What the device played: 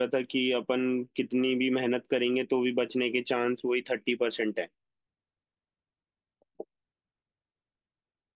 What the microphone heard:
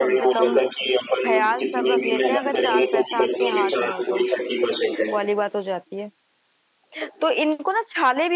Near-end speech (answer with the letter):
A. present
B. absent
A